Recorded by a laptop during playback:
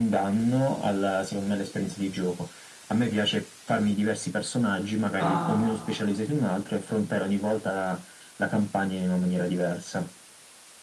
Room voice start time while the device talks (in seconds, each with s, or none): 5.2 s